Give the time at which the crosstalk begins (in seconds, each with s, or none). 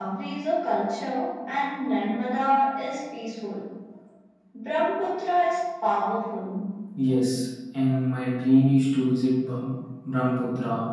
none